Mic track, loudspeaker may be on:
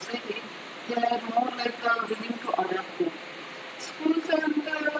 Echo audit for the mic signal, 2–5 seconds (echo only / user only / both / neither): echo only